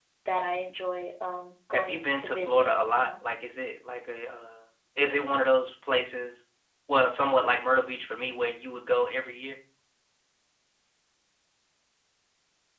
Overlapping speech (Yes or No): Yes